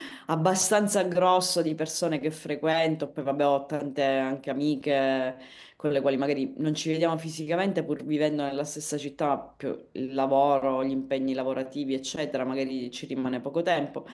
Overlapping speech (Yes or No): No